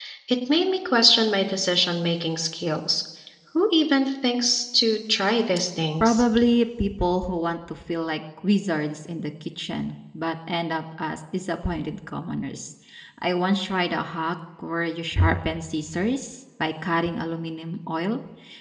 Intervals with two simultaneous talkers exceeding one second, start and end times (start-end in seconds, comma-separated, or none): none